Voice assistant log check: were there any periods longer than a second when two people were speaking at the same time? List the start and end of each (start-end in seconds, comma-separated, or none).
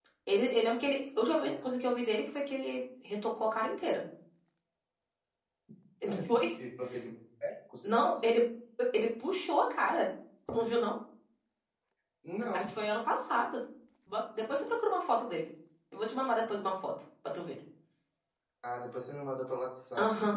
none